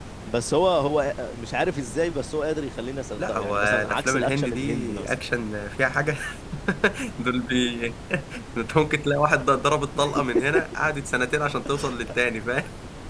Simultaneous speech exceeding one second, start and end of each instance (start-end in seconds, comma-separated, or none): 3.2-5.1